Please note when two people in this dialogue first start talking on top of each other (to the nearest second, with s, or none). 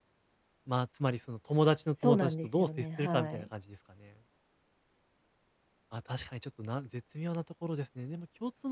2 s